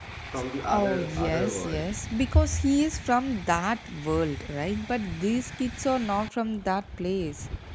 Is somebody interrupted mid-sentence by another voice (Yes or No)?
Yes